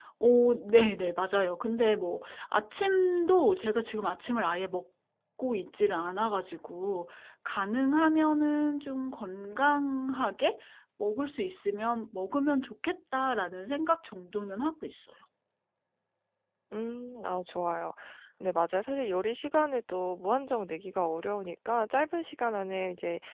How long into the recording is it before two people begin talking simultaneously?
none

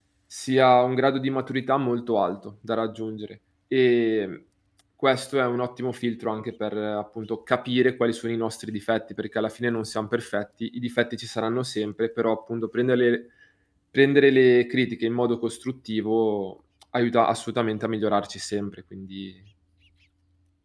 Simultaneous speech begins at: none

